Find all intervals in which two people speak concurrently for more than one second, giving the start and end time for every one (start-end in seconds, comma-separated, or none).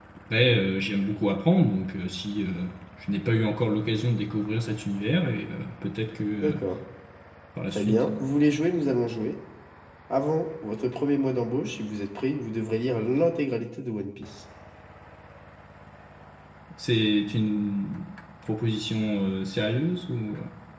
none